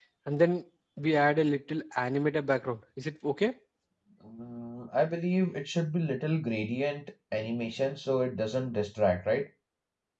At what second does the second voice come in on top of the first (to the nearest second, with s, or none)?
none